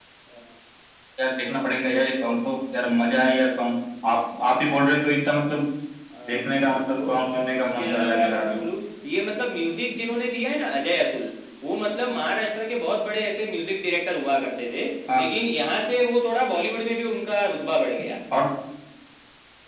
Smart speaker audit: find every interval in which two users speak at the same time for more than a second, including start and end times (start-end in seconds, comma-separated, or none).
6.3-8.6